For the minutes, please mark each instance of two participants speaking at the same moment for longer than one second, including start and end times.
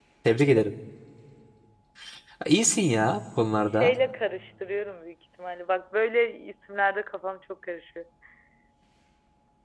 none

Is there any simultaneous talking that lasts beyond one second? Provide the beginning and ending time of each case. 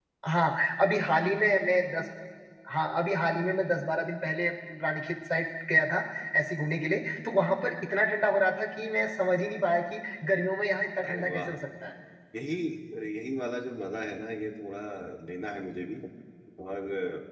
none

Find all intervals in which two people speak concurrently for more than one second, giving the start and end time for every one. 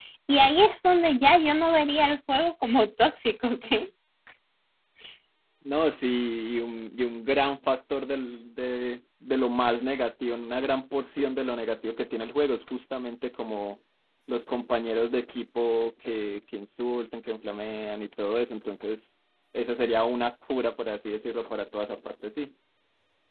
none

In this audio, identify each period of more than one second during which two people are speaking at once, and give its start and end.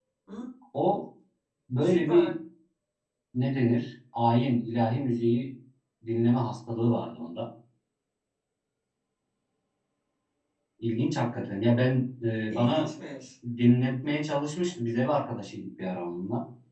none

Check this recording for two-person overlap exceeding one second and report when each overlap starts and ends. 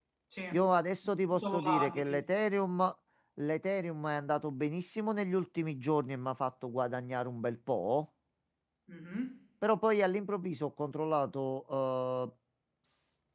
1.0-2.3

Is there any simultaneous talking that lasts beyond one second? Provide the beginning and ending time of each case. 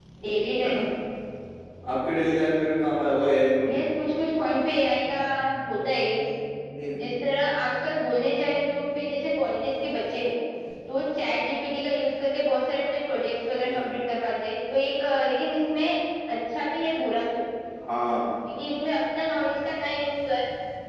none

